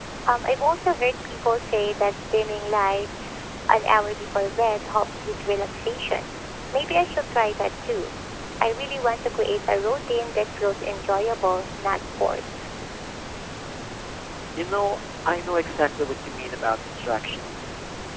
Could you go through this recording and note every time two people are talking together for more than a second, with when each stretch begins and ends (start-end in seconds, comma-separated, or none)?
none